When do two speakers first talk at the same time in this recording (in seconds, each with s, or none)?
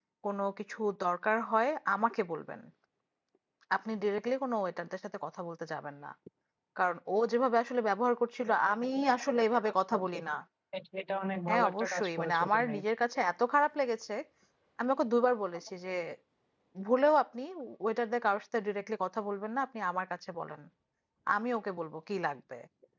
11.5 s